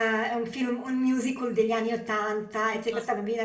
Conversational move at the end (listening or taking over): listening